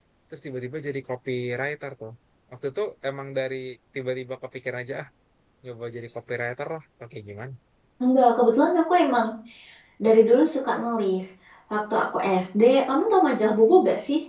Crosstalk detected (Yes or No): No